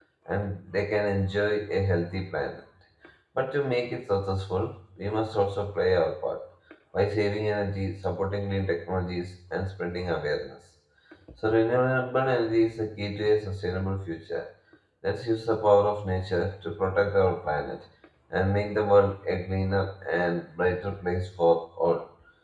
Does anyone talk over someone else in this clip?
No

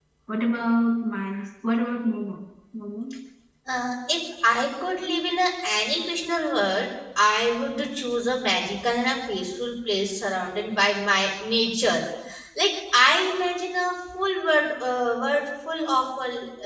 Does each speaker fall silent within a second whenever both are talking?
Yes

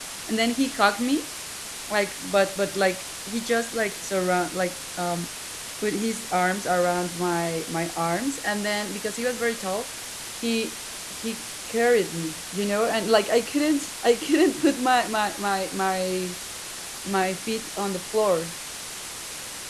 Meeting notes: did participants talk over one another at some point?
No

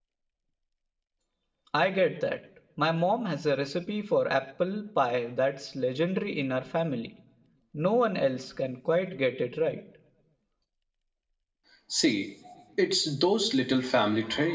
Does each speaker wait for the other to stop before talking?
Yes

